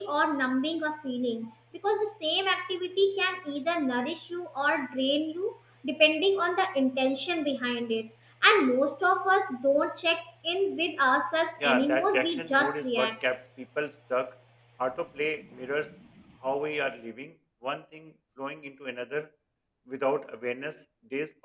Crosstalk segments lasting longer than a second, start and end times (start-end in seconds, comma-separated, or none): 11.6-13.2